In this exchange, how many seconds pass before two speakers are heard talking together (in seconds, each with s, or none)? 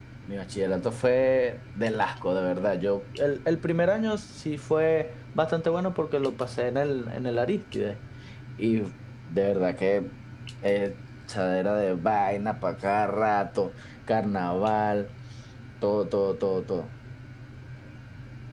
none